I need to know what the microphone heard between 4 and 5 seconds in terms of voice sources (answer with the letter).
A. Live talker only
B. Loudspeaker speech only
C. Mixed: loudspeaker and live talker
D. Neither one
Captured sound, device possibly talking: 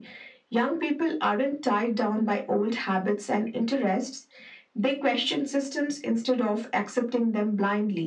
B